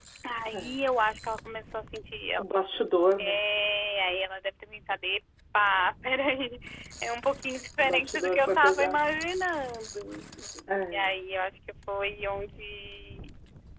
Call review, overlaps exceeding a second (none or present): present